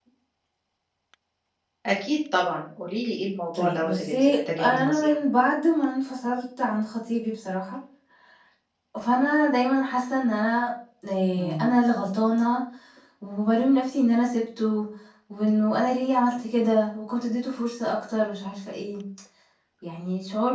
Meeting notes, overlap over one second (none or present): present